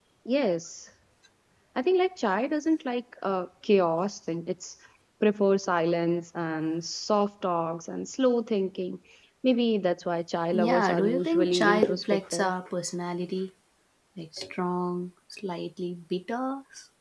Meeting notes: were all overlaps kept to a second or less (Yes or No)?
No